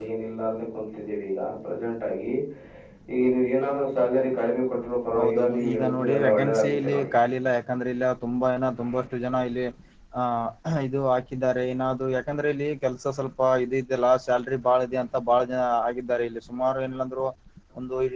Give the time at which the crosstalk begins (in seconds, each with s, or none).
5.1 s